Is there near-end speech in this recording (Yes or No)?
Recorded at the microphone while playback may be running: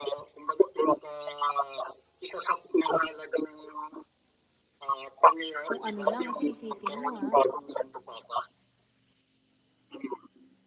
Yes